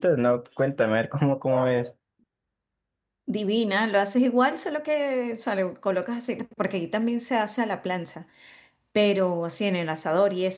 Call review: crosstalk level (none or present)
none